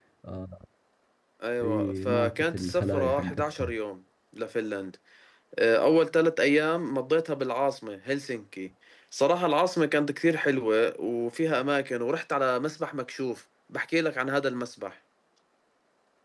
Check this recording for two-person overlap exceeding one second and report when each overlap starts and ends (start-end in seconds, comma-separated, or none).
1.6-3.7